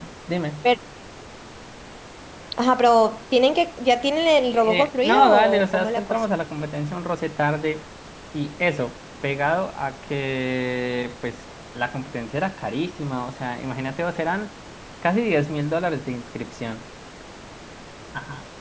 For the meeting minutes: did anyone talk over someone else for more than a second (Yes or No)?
Yes